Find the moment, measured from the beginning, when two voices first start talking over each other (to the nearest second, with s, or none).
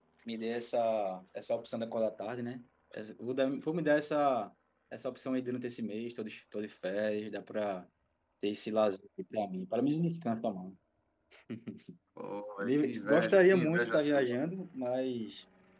13 s